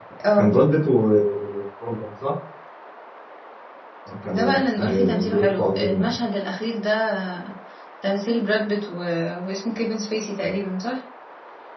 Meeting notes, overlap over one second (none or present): present